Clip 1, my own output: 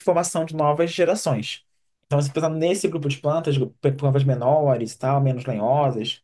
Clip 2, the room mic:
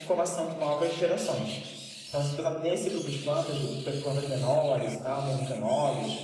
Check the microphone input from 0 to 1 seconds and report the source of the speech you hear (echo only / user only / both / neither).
echo only